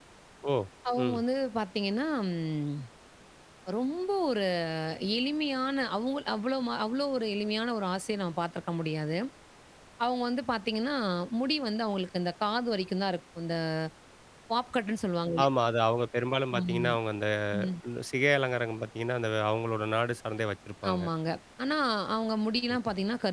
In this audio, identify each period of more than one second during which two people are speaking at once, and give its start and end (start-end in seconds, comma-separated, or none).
none